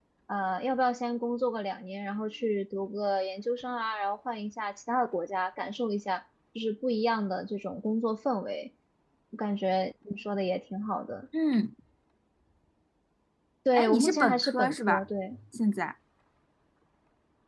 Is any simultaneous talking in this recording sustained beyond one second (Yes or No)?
Yes